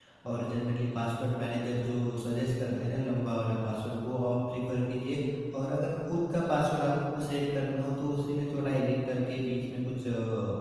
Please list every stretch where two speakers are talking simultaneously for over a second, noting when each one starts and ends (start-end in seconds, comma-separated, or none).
none